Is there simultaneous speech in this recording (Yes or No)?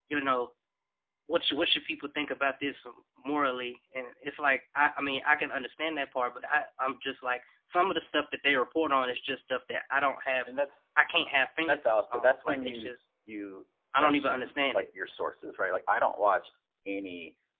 Yes